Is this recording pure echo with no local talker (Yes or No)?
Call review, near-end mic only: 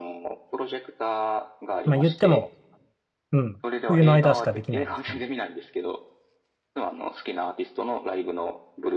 No